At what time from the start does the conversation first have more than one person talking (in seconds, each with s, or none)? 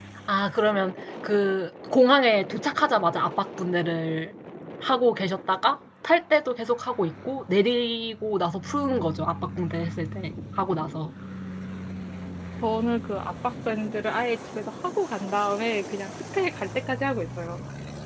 none